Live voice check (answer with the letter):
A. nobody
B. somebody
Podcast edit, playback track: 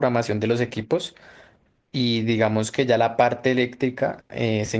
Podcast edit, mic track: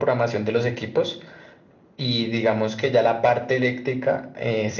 A